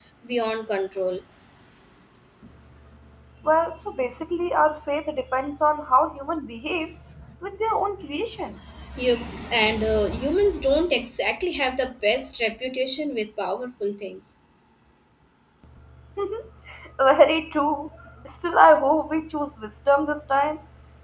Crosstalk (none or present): none